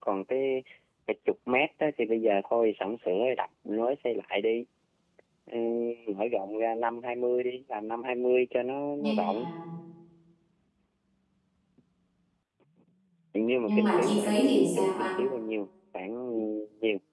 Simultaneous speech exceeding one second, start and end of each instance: 13.6-15.2

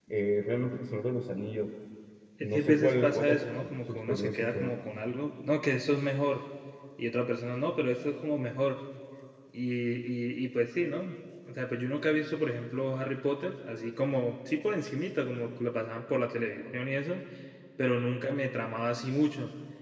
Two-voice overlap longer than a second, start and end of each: 2.4-4.7

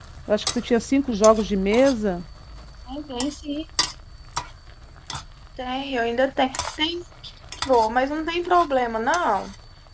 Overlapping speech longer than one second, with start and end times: none

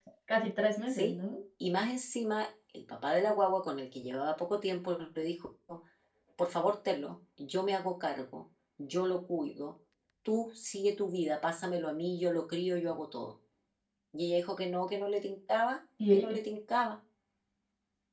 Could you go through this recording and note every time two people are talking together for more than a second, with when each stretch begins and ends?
none

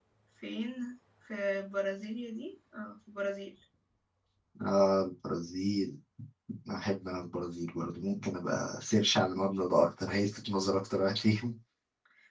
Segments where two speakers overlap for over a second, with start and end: none

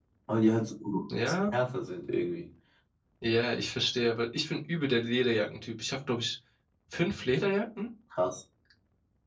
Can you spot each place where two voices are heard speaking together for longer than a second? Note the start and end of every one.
none

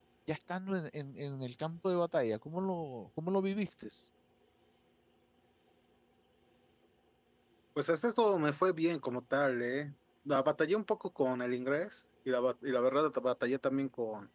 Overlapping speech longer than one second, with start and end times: none

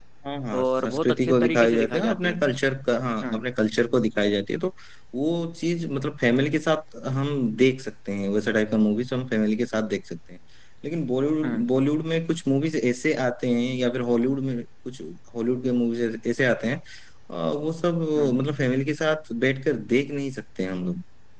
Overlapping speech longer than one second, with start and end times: 0.6-2.4

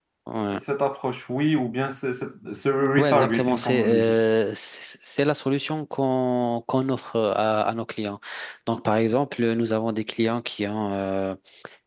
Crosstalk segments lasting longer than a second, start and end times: 3.0-4.2

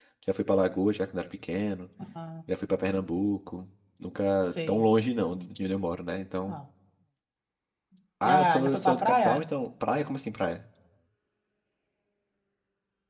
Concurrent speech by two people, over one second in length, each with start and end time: 8.2-9.4

